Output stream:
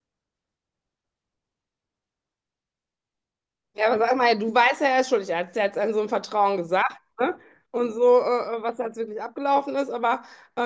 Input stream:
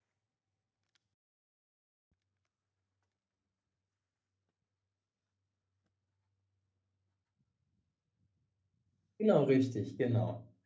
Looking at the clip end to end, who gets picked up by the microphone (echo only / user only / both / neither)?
user only